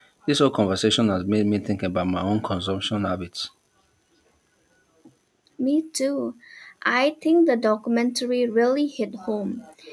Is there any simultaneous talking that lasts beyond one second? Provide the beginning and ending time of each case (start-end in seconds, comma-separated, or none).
none